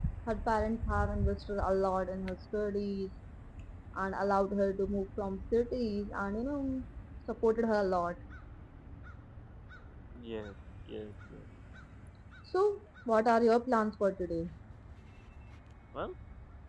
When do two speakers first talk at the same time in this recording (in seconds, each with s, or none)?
none